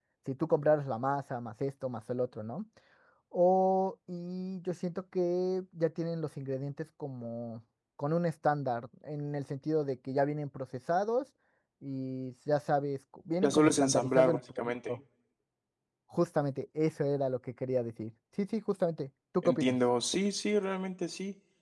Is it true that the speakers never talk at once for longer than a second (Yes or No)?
No